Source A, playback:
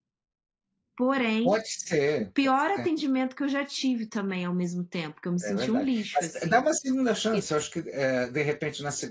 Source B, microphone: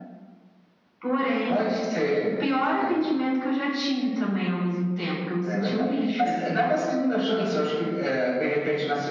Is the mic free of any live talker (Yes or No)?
Yes